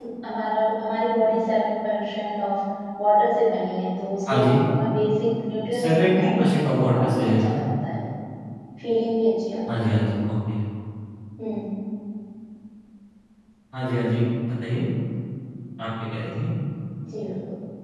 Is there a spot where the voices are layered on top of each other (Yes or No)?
Yes